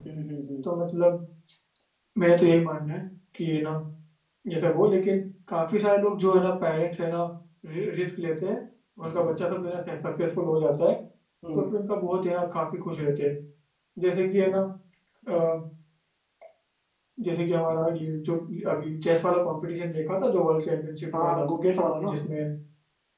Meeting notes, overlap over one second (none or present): none